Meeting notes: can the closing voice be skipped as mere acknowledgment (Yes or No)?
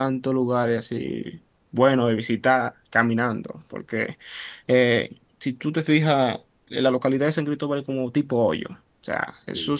Yes